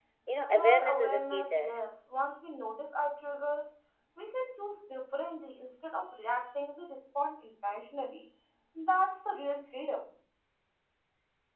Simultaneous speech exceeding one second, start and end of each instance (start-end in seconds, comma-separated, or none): 0.5-1.8